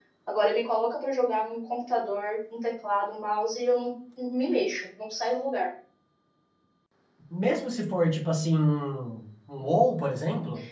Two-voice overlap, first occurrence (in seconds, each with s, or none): none